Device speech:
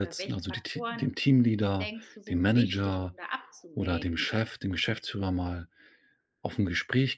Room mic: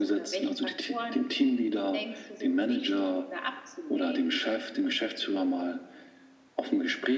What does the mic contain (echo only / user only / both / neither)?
echo only